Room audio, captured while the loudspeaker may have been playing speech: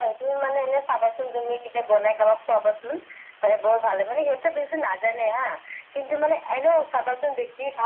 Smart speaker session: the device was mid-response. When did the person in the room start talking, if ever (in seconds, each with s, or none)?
none